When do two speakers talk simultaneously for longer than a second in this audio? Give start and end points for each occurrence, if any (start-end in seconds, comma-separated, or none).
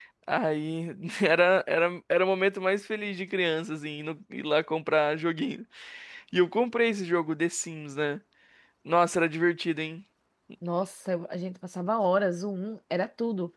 none